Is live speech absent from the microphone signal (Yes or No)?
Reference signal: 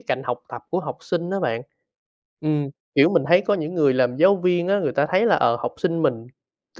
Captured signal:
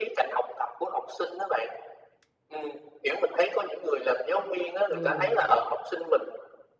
No